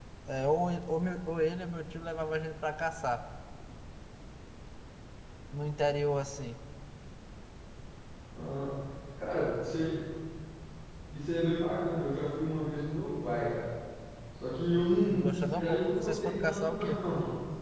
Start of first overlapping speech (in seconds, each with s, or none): 15.1 s